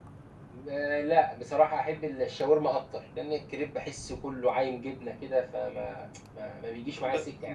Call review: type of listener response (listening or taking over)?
taking over